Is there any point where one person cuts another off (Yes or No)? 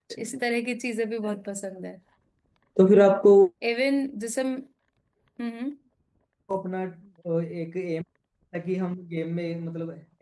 No